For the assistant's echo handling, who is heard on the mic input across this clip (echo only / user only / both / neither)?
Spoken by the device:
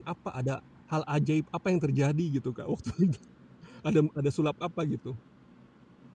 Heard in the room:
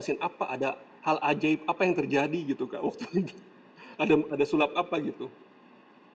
echo only